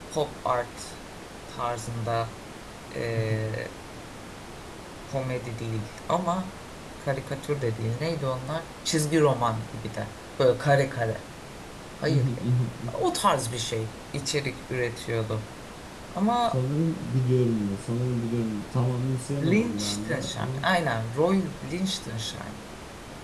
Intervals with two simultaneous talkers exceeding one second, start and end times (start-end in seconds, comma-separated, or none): 19.4-20.6